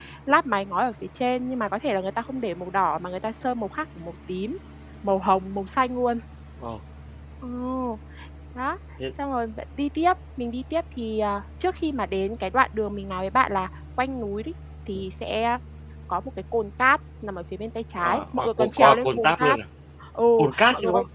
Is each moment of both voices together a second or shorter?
No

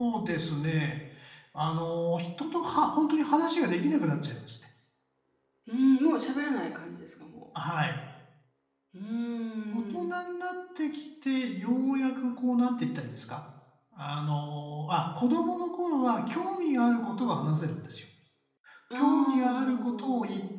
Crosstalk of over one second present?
Yes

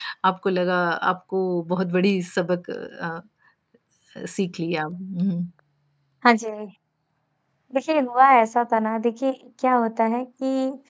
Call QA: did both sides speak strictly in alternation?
Yes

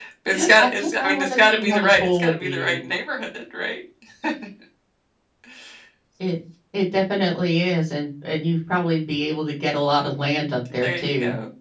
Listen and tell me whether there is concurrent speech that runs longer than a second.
Yes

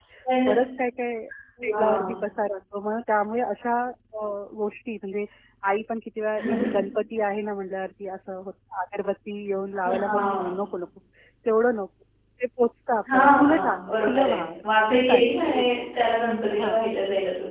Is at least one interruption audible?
Yes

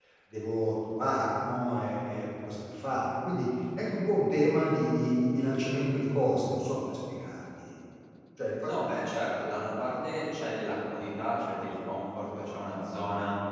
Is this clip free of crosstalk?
Yes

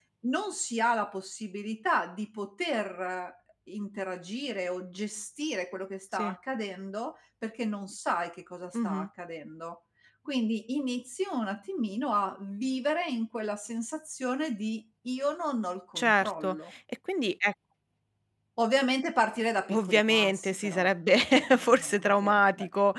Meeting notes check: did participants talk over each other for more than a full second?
Yes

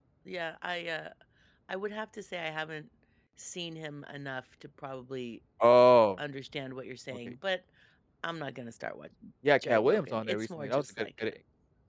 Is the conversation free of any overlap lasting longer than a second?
No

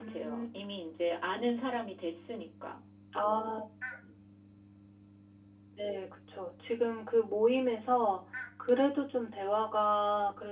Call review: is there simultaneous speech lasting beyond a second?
No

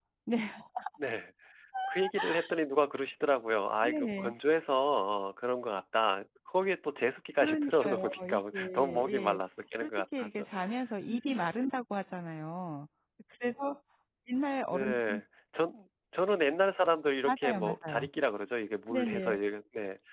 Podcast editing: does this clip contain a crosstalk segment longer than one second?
Yes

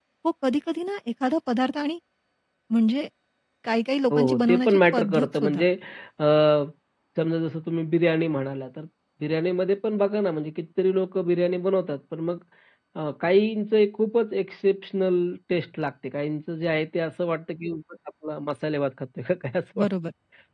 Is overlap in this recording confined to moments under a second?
No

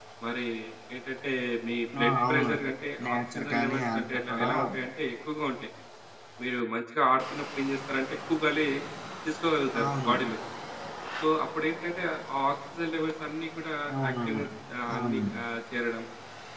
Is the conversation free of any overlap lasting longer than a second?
No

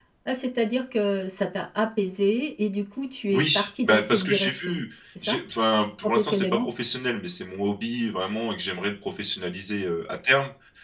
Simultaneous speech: Yes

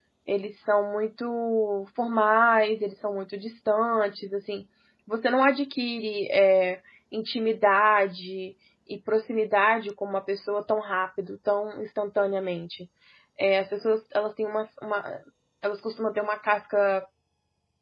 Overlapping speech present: No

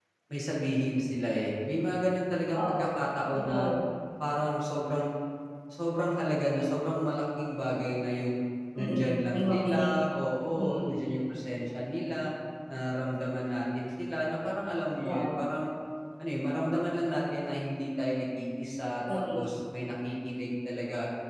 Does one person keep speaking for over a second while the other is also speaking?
Yes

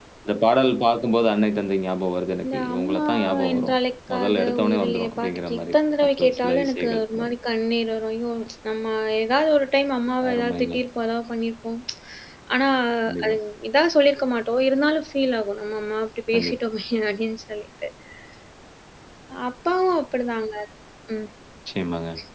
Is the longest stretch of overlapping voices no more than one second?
No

